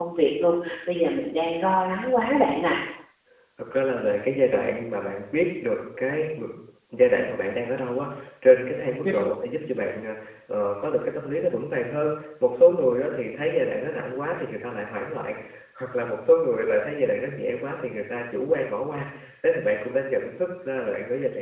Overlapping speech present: No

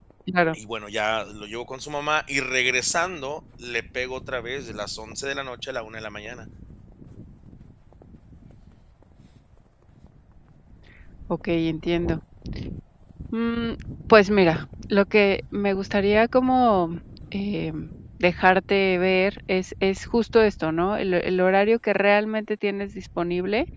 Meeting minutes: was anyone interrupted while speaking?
No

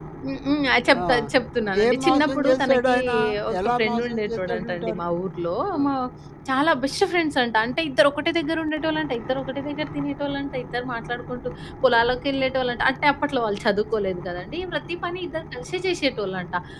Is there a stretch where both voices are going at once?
Yes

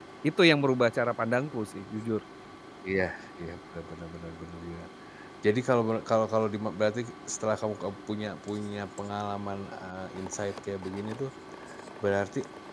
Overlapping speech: No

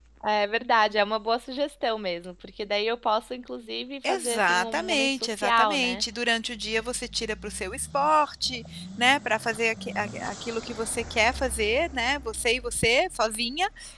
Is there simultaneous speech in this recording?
Yes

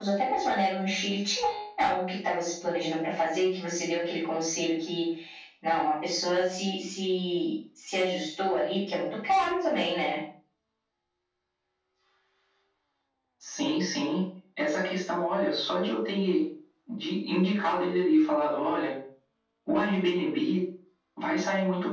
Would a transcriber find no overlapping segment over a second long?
Yes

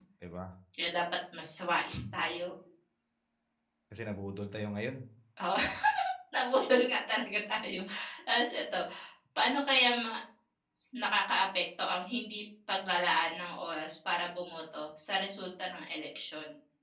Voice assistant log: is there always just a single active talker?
Yes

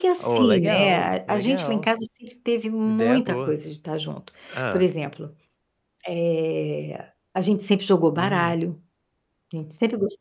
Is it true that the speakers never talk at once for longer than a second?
No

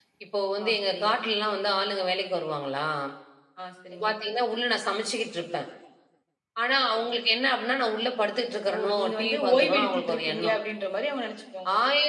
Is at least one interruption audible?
Yes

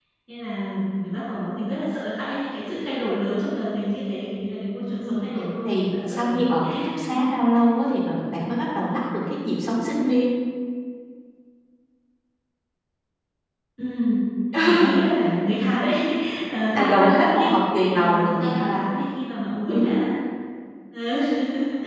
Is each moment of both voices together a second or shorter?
No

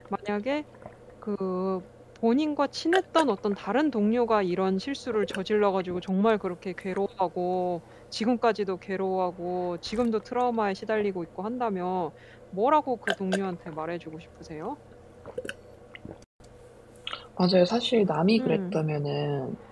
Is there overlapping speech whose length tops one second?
No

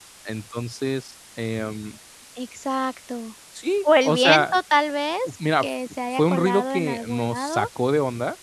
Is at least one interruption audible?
Yes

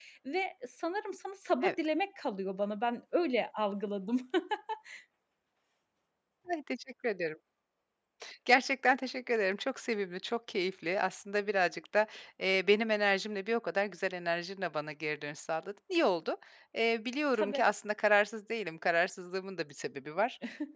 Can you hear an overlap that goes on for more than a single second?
No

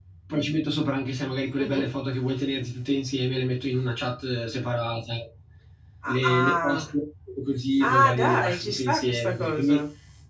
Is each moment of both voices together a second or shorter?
No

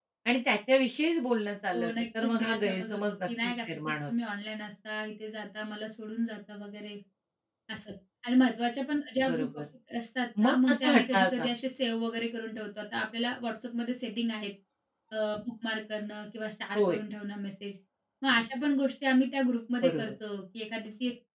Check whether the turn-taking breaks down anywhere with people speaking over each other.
Yes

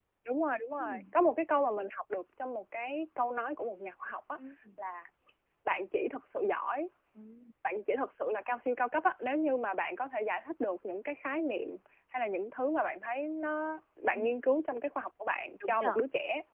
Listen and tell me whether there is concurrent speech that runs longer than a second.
No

